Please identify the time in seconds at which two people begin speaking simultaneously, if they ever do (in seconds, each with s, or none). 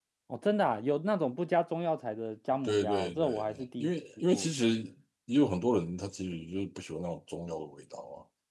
2.6 s